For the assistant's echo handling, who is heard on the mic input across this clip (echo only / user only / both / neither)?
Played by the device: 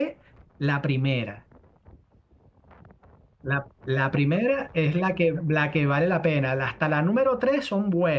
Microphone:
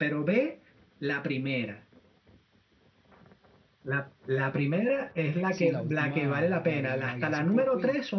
both